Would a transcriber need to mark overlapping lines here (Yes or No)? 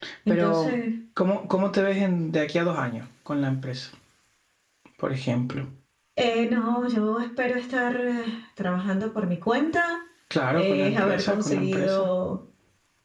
Yes